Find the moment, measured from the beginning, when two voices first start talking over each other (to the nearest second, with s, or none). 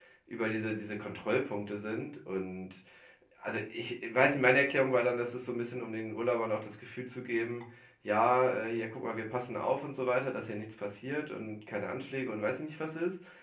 none